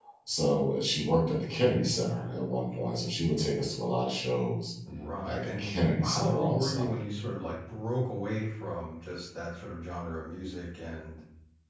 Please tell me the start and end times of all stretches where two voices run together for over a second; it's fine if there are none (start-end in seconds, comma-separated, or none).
5.2-6.9